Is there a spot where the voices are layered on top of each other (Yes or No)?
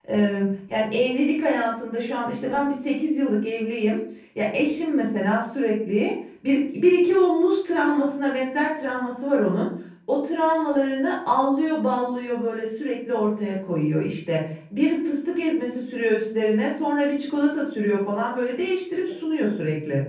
No